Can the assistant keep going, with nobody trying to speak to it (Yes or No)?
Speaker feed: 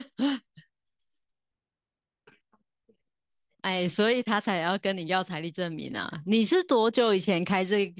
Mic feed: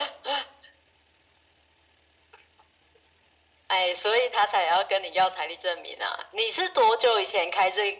Yes